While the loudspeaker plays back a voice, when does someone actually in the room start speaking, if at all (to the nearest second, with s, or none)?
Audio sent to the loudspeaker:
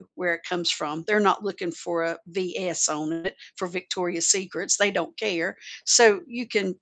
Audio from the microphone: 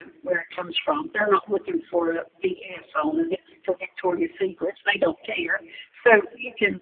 none